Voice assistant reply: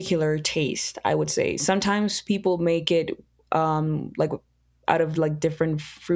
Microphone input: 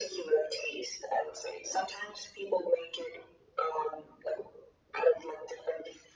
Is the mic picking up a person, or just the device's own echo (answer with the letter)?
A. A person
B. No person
B